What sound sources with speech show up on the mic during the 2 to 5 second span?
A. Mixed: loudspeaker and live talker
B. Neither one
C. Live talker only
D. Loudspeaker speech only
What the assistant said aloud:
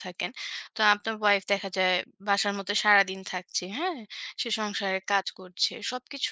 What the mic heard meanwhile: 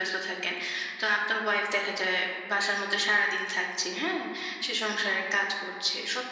D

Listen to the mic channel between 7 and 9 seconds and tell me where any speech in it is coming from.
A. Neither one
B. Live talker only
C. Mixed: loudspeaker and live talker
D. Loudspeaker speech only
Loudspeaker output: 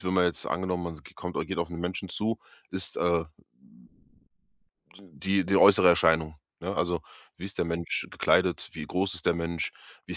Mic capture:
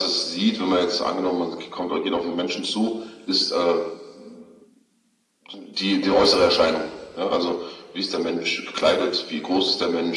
D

